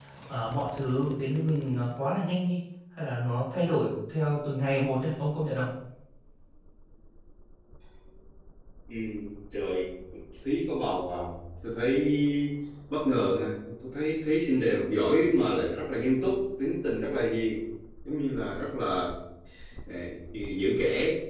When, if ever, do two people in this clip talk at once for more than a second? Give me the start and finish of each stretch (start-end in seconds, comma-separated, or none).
none